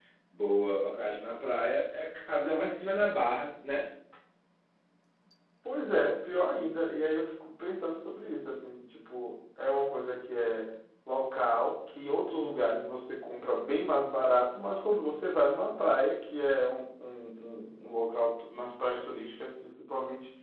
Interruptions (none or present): none